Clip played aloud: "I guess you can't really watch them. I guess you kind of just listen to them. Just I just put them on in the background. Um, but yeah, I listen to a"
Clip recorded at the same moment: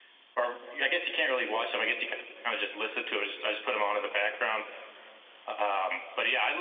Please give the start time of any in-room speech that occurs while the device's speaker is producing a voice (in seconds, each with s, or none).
none